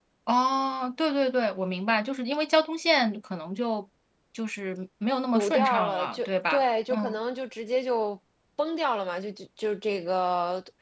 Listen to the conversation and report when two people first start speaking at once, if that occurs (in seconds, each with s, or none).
5.3 s